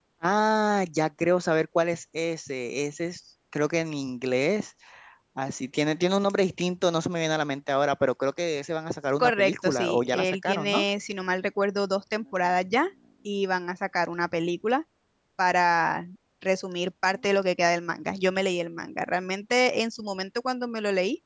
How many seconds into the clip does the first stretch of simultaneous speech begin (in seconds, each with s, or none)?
9.2 s